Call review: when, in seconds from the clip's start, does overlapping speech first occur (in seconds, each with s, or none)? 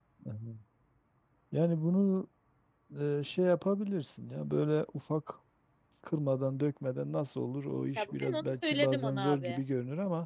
8.0 s